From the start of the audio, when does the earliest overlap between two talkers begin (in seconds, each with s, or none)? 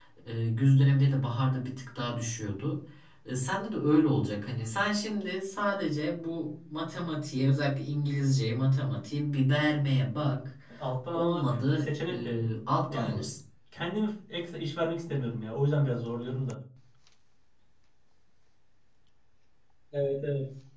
11.1 s